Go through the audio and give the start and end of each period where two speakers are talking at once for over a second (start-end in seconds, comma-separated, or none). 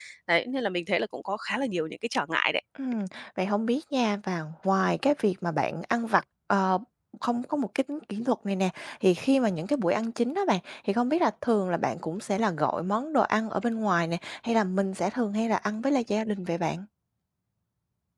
none